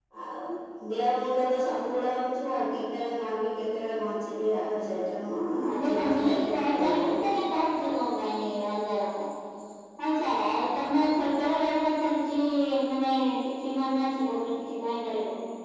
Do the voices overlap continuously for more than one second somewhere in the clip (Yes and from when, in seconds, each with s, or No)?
Yes, from 5.9 s